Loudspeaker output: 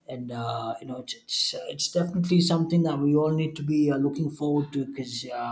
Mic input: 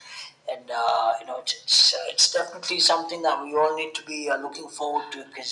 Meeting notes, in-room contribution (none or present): none